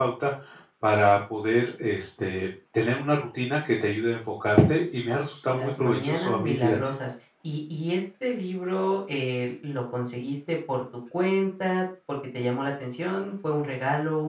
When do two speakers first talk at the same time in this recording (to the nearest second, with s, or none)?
5 s